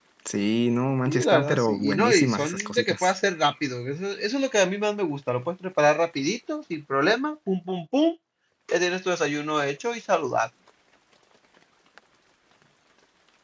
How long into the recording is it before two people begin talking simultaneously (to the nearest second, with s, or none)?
1 s